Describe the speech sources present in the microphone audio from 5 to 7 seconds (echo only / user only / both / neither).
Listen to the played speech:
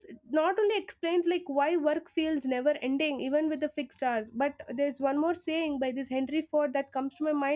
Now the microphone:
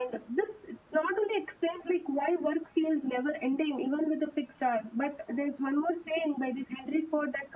echo only